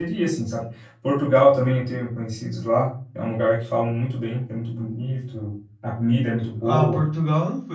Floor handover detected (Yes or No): Yes